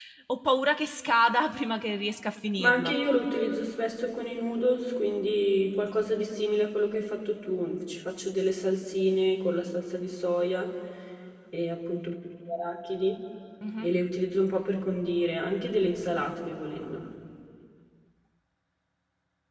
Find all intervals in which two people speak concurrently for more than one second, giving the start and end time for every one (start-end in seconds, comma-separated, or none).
none